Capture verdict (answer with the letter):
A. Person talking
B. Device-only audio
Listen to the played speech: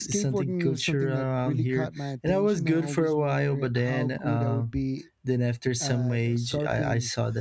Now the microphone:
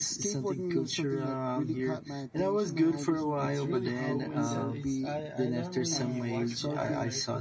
A